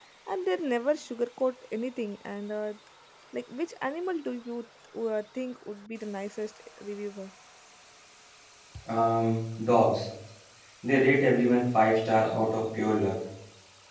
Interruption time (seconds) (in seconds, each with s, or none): none